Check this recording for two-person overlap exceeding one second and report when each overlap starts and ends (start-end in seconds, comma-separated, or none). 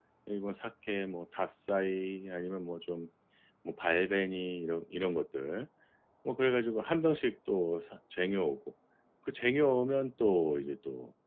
none